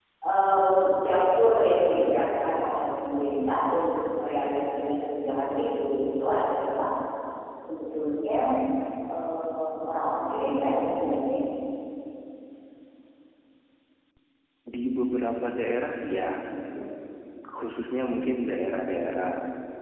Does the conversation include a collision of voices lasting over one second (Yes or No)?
No